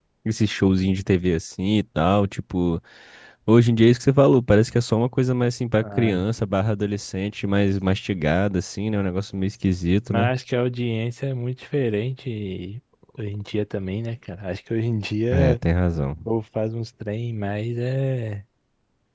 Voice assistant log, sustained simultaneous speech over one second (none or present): none